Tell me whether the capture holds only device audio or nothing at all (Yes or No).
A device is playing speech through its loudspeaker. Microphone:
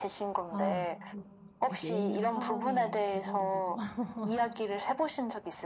No